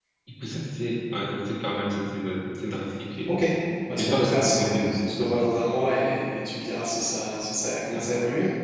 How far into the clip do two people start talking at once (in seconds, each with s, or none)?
4.0 s